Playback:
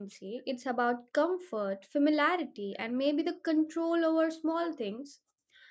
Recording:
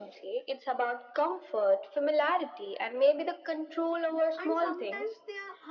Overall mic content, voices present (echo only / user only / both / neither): both